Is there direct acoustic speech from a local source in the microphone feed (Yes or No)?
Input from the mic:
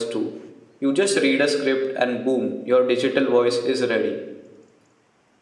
No